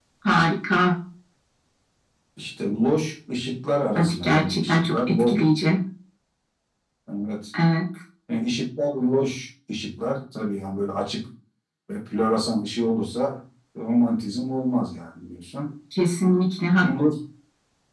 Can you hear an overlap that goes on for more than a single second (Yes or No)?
Yes